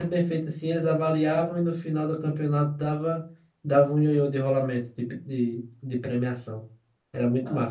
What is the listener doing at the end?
taking over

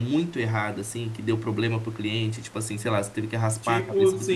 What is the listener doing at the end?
taking over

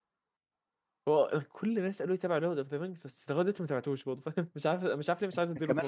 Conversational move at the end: taking over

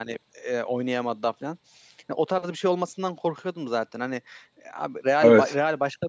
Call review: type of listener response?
listening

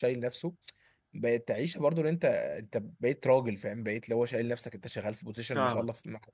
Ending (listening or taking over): listening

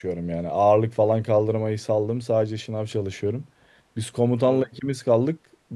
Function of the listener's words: listening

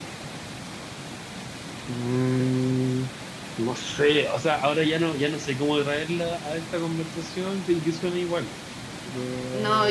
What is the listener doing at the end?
taking over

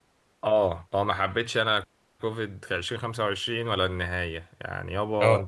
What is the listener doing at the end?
listening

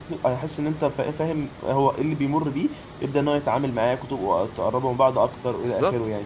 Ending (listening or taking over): taking over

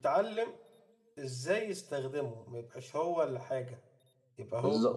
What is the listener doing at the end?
taking over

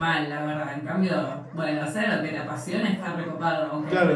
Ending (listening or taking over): taking over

